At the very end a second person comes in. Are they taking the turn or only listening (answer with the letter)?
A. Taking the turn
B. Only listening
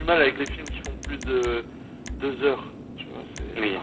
A